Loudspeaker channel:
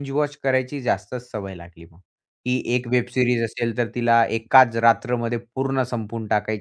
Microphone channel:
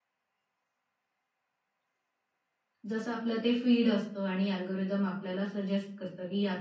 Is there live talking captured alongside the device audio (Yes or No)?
Yes